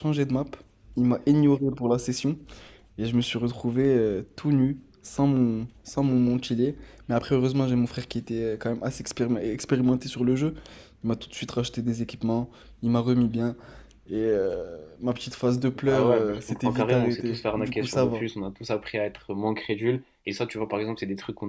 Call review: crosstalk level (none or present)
present